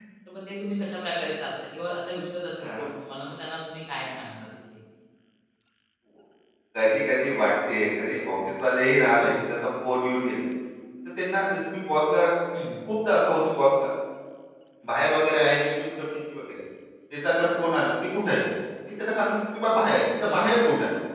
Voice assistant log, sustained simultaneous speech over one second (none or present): none